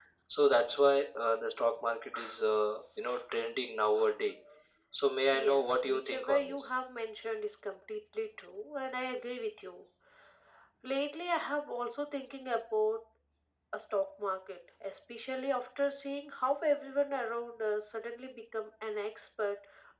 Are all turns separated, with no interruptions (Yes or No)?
No